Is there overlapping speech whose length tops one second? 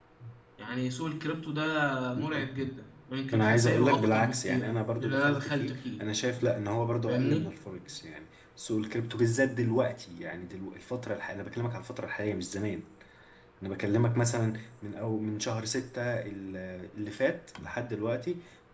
Yes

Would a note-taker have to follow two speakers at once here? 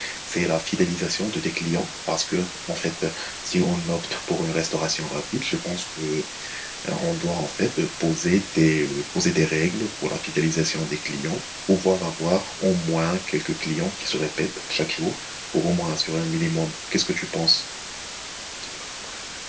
No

